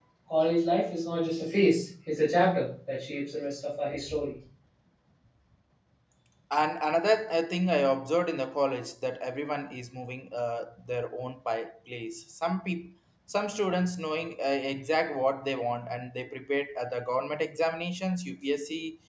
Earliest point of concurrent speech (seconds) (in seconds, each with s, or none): none